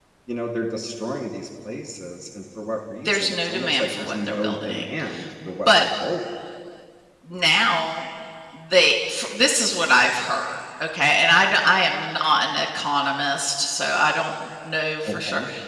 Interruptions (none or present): present